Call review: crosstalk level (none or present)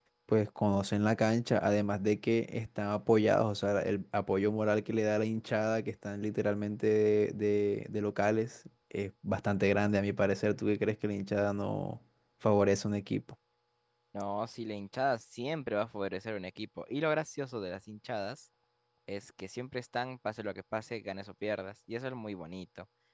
none